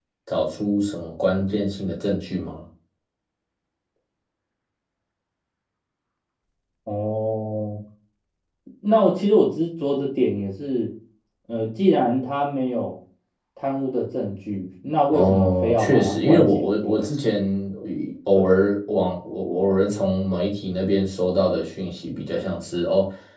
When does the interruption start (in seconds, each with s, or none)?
15.1 s